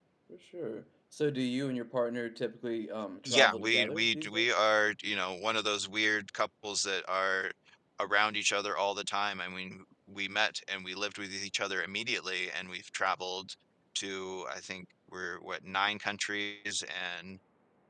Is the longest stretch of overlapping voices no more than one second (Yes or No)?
No